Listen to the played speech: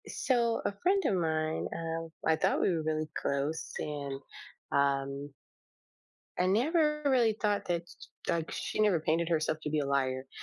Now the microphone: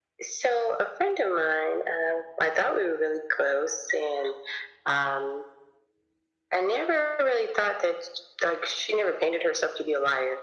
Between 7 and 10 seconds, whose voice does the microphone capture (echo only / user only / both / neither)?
echo only